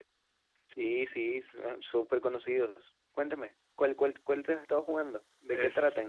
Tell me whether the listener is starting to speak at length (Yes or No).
Yes